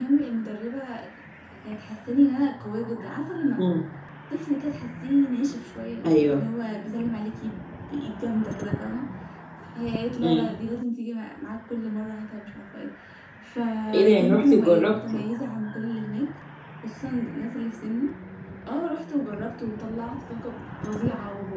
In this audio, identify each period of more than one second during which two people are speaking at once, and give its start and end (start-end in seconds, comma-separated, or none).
13.9-15.2